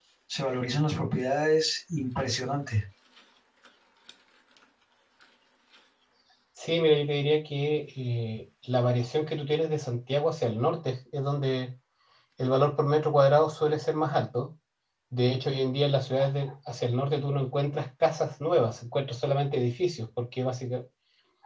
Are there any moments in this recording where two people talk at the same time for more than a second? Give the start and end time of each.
none

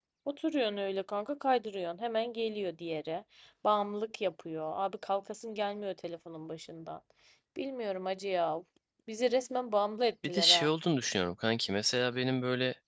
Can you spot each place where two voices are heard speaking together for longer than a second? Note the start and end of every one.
none

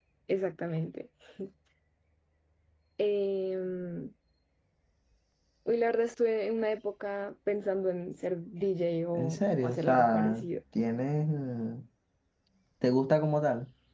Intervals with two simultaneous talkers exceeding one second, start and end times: 9.1-10.4

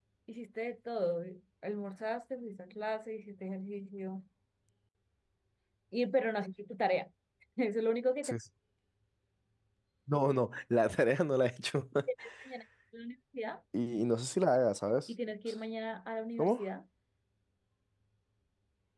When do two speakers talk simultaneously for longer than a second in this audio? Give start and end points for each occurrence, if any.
none

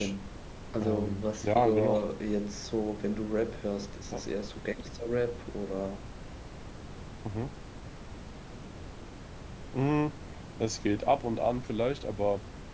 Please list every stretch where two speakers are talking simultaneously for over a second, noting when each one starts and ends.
0.8-2.0

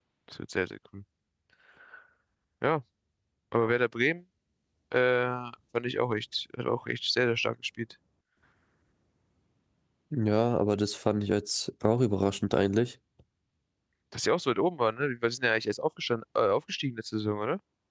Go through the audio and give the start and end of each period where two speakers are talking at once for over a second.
none

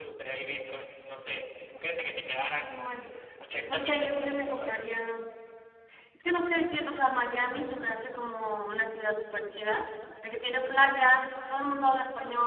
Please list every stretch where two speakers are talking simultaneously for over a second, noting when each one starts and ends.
3.5-4.8

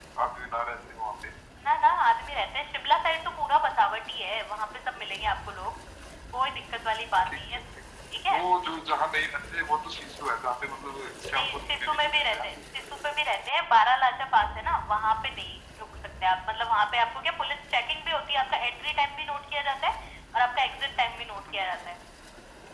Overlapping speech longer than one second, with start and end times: 11.3-12.5

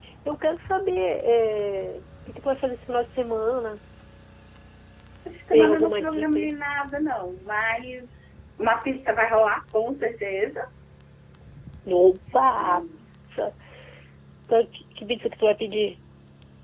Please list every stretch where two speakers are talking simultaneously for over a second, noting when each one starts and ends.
5.3-6.5

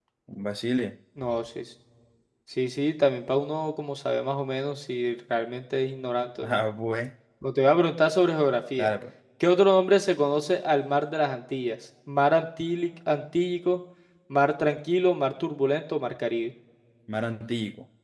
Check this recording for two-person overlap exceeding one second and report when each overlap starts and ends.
none

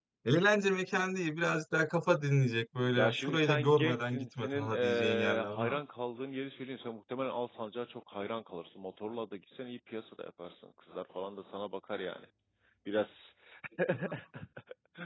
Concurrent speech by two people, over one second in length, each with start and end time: 3.0-5.8

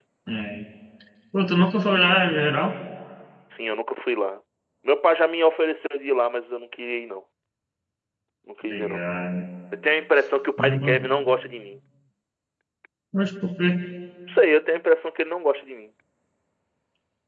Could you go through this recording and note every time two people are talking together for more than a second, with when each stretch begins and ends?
none

